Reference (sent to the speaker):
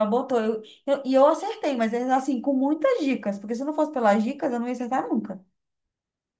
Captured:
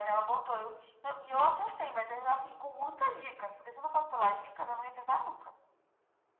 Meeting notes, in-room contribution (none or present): none